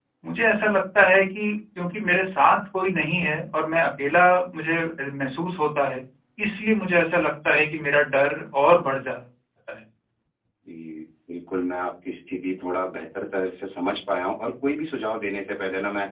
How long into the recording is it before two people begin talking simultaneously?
none

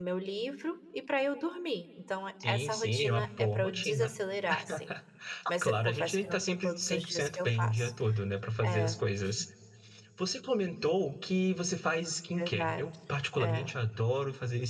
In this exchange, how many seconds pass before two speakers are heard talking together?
2.4 s

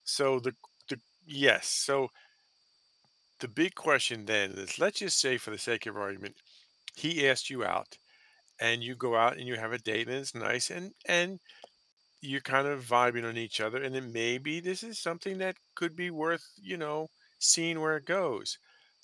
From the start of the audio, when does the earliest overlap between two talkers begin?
none

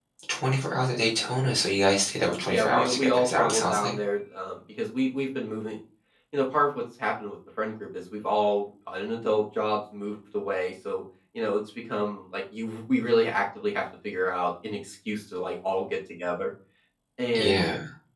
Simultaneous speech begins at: 2.5 s

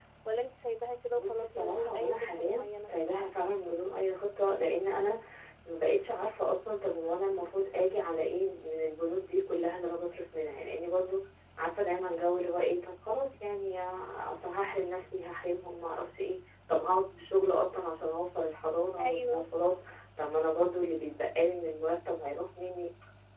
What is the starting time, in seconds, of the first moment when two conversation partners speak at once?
1.1 s

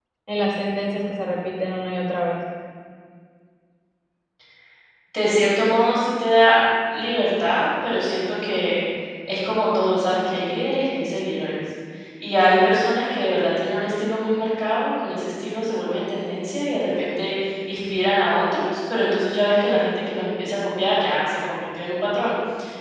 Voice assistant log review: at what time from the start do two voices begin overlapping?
none

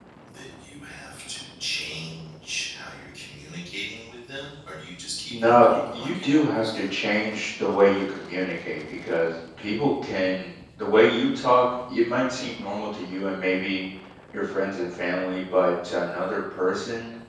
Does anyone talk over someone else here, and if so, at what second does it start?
5.3 s

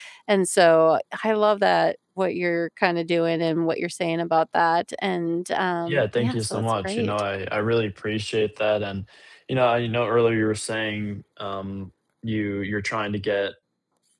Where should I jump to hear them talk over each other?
5.9 s

